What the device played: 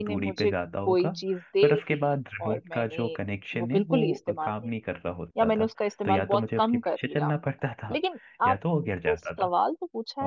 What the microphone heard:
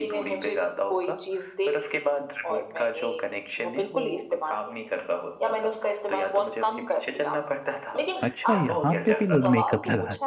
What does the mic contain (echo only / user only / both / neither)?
both